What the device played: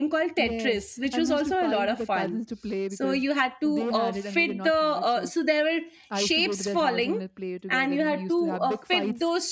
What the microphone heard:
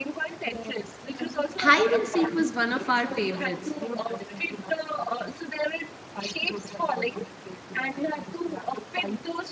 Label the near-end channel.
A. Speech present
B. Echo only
A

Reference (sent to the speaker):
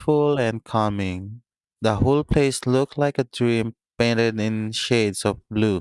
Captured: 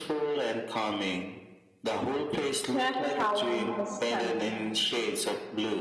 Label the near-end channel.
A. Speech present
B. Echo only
A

